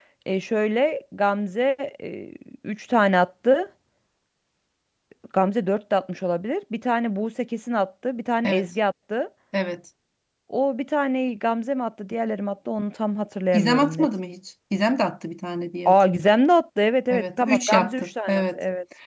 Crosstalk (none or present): present